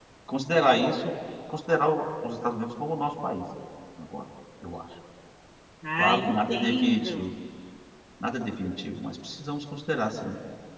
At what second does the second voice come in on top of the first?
6.0 s

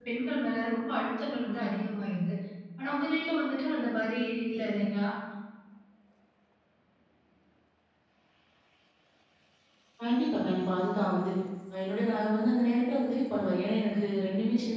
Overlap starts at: none

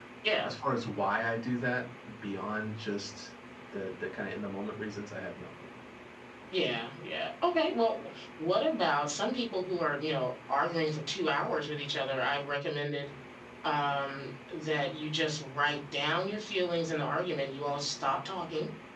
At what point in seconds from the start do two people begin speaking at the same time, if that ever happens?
none

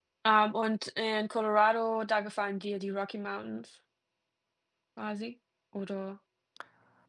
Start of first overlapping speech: none

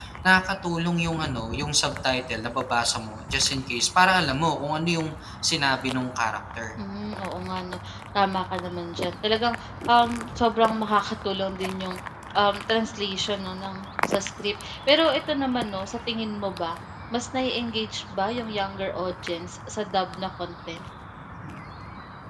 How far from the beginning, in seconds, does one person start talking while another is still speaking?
none

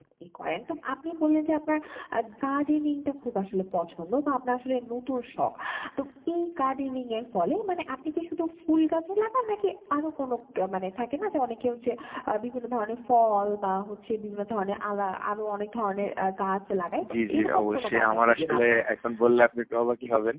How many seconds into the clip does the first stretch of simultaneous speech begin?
17.3 s

